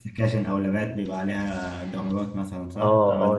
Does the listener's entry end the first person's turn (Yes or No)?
Yes